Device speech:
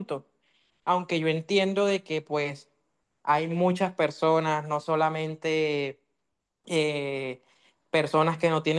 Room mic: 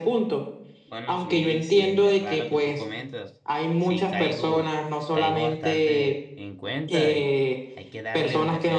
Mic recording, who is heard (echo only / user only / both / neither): both